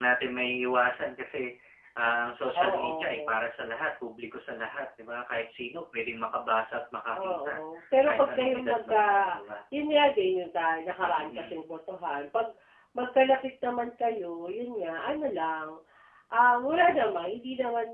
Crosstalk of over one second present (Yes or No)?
Yes